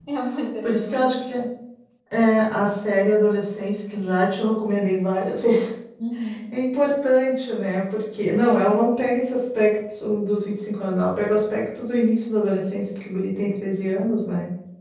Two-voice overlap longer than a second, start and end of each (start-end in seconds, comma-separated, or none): none